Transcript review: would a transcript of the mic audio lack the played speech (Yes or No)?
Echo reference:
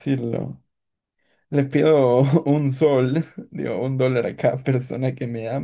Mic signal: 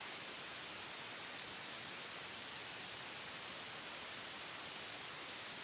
Yes